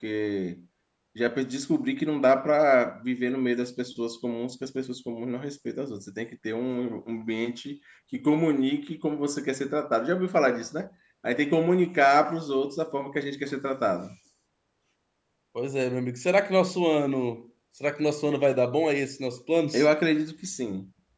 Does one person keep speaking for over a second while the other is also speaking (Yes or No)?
No